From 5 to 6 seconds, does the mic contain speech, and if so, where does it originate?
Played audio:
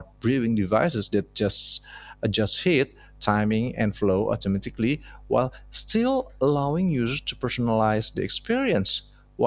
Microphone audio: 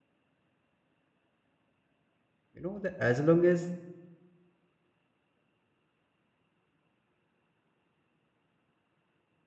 neither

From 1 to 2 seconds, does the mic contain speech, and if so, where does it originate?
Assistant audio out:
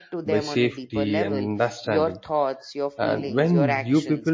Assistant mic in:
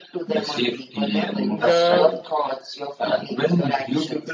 both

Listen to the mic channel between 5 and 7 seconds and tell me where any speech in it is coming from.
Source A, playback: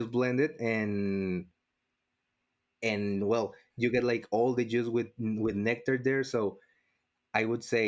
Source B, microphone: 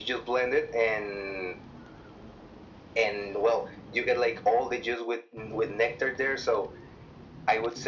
echo only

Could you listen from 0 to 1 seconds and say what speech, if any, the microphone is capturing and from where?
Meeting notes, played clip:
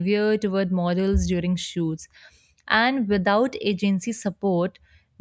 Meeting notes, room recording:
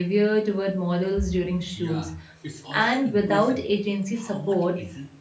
echo only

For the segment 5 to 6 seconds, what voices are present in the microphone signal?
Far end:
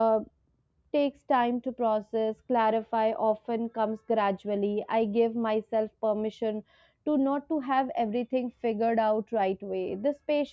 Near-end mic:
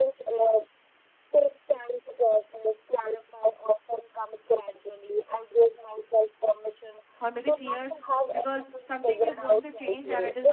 echo only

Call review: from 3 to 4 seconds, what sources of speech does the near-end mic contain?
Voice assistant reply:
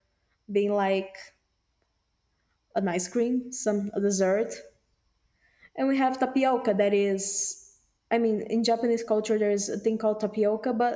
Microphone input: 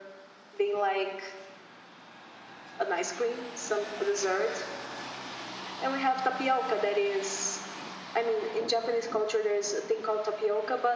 echo only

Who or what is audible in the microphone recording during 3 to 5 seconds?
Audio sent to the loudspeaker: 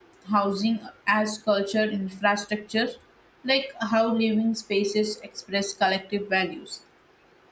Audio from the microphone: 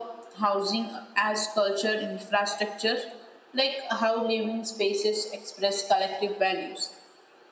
echo only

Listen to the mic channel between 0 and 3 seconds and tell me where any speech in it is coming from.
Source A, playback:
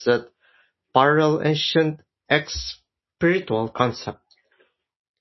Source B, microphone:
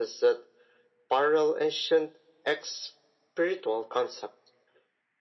echo only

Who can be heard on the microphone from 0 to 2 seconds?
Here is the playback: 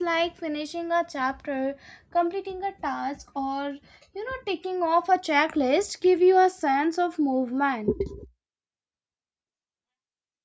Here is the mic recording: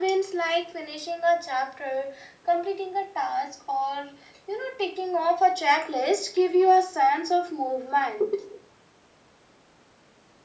echo only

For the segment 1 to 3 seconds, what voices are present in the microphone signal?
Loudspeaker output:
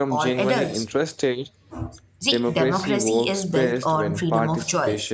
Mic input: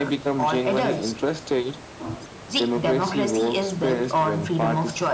echo only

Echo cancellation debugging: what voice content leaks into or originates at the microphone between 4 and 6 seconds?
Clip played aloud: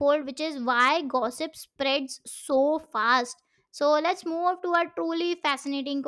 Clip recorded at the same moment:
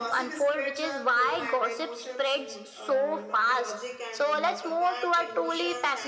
both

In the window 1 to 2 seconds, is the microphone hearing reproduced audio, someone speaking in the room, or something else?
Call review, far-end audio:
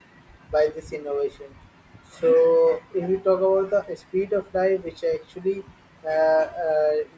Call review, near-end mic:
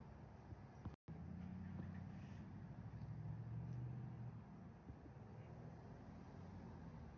neither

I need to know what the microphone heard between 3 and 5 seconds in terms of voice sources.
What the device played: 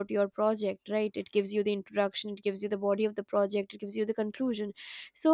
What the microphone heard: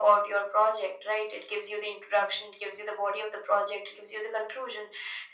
echo only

